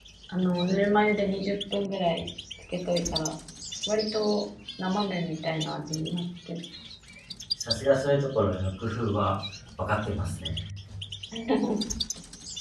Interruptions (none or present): none